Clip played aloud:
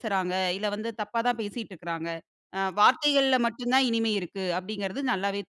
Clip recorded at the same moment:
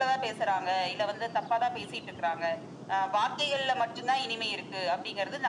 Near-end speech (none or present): none